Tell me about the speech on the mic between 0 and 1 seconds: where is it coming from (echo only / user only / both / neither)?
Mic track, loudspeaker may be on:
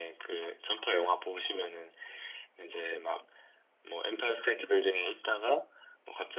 echo only